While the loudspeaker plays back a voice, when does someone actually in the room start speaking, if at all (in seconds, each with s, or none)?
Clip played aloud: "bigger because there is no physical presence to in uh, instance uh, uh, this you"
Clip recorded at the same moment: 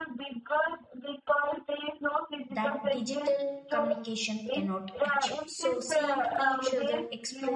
2.5 s